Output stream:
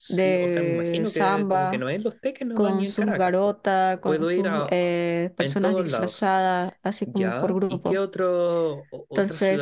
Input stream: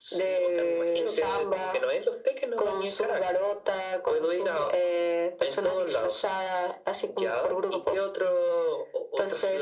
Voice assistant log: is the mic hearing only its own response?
Yes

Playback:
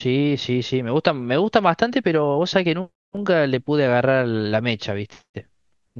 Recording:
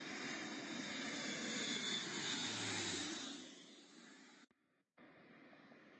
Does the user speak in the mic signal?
No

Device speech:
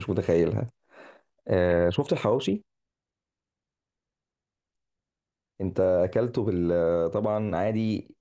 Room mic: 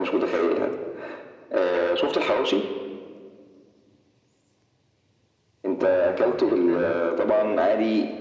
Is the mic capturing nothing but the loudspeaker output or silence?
No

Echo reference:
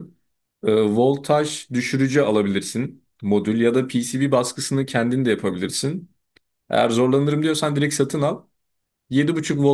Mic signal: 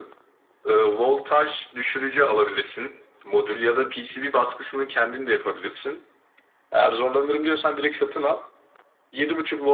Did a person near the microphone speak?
No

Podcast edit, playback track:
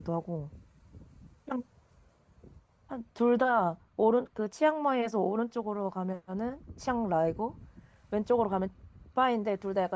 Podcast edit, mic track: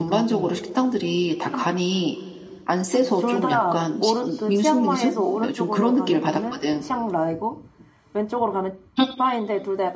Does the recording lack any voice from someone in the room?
No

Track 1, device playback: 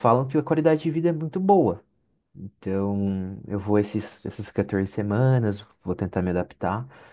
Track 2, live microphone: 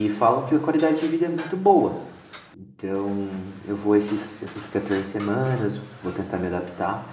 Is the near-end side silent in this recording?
Yes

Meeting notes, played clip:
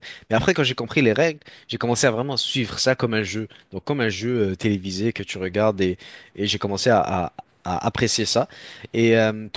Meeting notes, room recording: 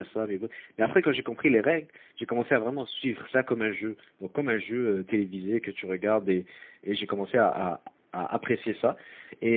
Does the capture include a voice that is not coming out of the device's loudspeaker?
No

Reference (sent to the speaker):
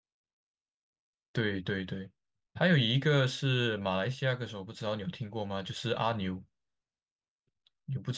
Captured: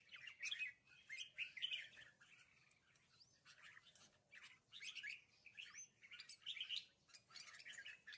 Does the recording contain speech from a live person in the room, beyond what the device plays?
No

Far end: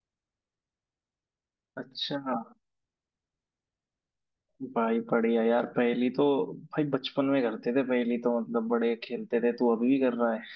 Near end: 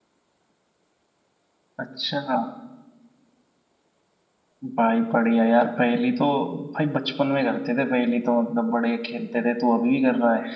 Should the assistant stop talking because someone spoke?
No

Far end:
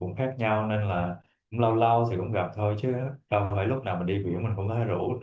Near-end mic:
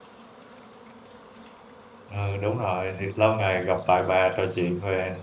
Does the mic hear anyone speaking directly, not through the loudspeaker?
Yes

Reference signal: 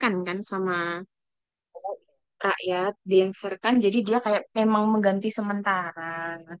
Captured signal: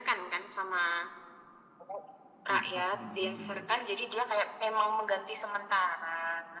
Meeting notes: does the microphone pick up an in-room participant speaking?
Yes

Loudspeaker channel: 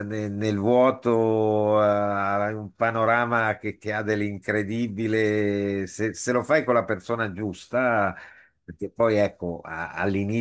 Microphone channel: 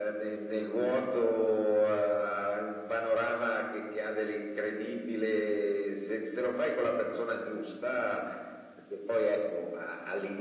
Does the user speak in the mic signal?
No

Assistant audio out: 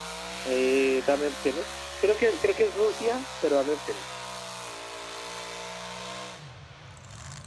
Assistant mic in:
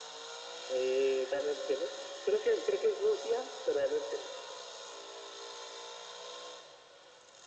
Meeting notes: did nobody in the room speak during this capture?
Yes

